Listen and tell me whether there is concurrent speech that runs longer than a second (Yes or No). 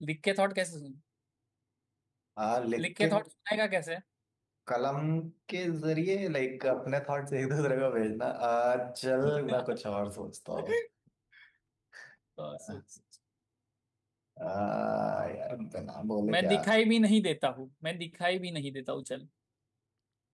No